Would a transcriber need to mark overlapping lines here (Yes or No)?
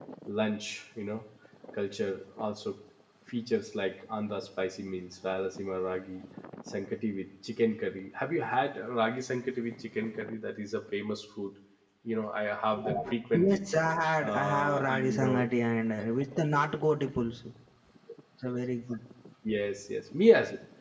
Yes